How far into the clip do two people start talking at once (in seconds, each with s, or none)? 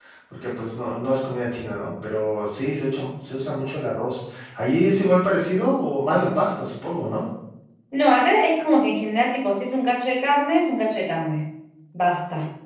none